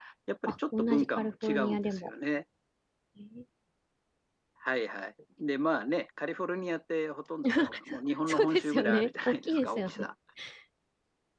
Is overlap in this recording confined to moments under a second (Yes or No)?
No